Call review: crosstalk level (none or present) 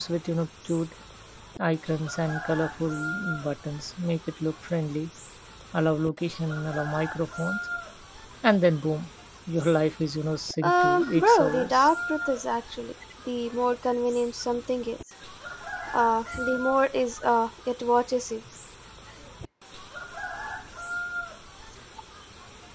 present